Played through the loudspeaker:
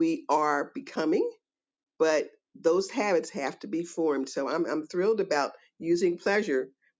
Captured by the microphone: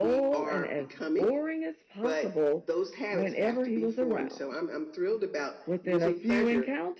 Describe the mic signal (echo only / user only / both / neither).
both